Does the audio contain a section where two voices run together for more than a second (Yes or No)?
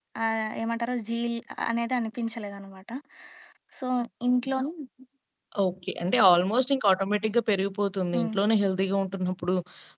No